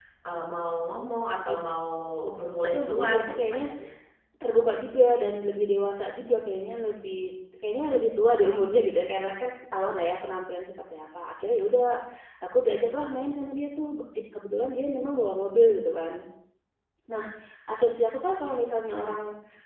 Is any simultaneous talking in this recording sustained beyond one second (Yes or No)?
Yes